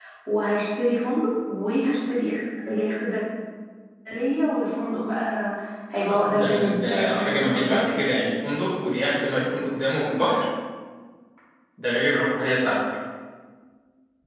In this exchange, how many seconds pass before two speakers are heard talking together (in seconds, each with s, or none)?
6.1 s